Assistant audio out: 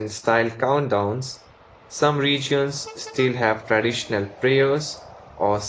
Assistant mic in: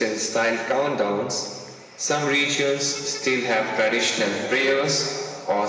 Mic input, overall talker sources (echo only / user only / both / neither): echo only